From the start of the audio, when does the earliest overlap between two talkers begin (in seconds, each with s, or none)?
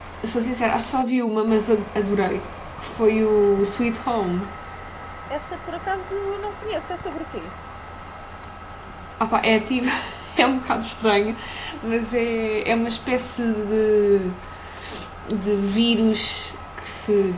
none